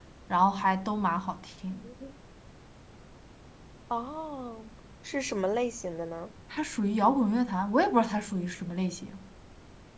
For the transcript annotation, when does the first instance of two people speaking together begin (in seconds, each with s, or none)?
none